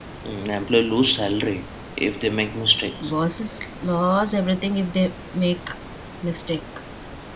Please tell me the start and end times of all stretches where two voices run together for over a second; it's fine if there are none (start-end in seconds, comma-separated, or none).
none